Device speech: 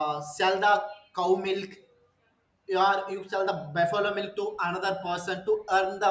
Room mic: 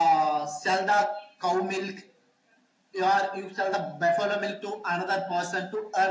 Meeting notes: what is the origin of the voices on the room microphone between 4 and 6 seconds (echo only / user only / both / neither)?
echo only